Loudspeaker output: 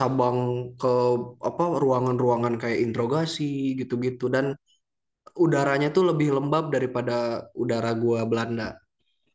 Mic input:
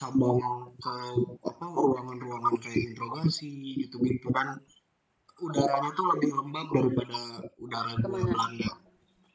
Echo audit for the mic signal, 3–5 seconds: echo only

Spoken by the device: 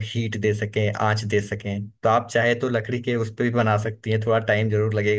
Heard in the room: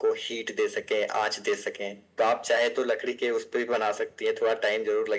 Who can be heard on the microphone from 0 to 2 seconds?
echo only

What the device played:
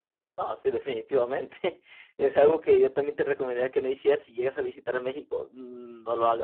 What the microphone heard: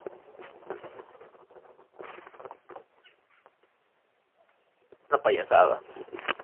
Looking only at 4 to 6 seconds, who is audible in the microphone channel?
user only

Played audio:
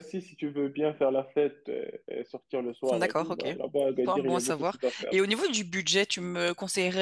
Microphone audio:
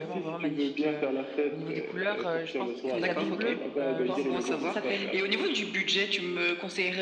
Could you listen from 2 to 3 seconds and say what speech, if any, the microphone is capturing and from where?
both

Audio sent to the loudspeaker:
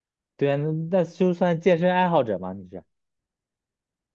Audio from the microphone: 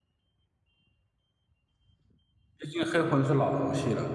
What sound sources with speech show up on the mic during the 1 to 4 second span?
user only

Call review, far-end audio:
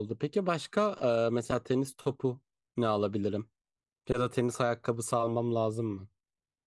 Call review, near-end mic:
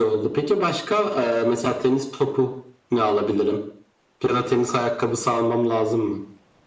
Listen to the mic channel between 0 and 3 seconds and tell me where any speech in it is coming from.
echo only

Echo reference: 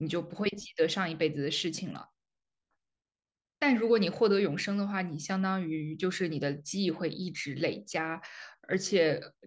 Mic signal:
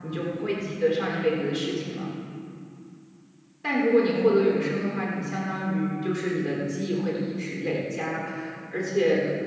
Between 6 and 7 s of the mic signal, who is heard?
echo only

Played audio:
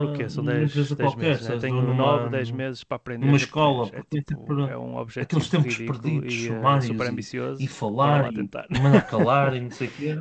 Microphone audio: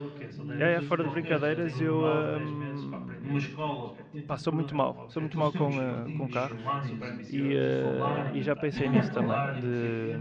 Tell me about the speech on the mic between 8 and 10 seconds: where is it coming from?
both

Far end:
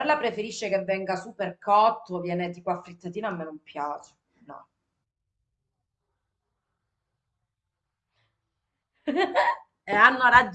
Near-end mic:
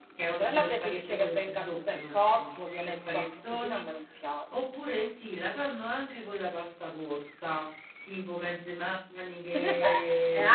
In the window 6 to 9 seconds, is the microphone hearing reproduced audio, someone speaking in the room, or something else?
user only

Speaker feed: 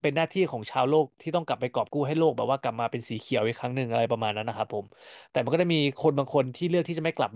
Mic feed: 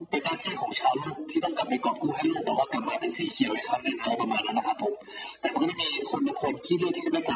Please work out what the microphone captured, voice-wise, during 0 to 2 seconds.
echo only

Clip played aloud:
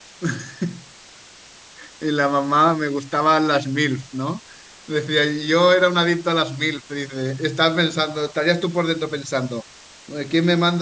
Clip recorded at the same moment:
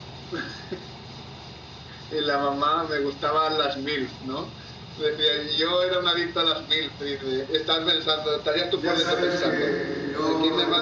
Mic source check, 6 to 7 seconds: echo only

